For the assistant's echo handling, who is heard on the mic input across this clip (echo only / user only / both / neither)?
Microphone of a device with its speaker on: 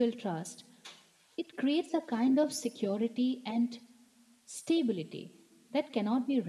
echo only